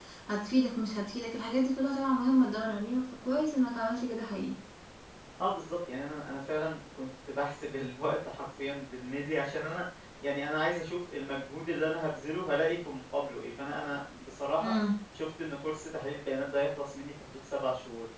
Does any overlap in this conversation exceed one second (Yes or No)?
No